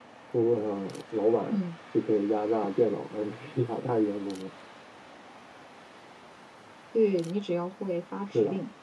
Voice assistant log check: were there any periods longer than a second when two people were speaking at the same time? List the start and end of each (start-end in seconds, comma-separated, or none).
none